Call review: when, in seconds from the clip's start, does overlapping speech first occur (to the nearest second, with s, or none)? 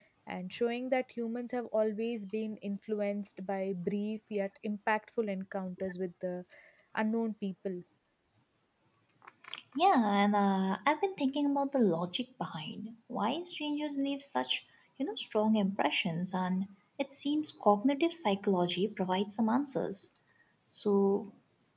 none